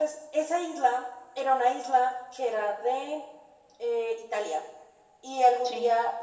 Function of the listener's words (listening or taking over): listening